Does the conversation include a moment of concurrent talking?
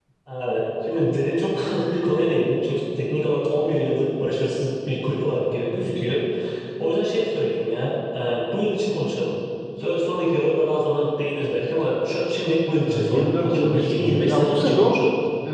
Yes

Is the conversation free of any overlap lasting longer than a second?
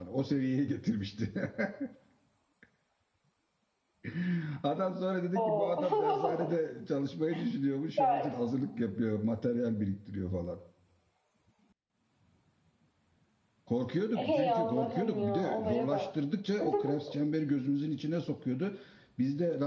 No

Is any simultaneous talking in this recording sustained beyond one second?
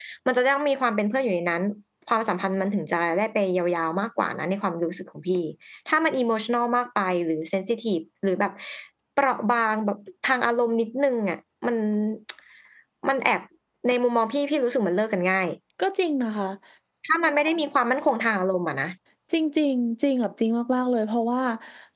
No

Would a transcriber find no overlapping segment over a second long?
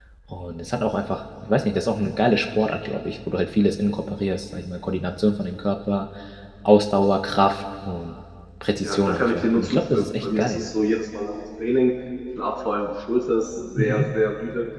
No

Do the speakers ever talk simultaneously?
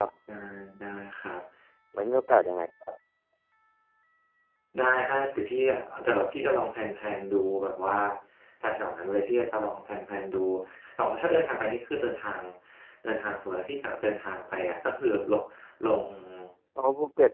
No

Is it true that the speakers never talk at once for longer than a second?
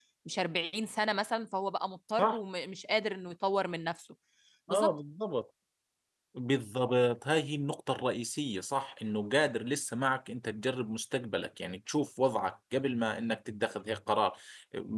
Yes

